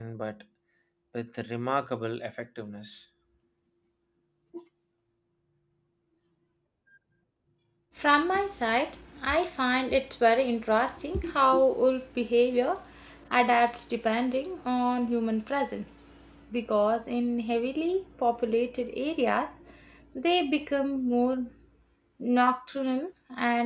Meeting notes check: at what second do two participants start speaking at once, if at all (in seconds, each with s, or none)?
none